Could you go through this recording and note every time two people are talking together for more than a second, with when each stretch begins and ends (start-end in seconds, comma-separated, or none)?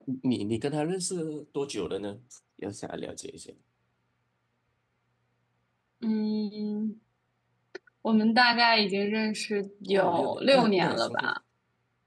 9.9-11.1